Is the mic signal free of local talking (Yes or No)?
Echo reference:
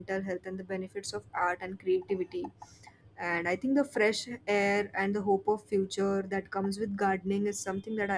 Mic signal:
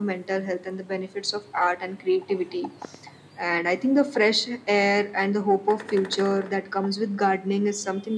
Yes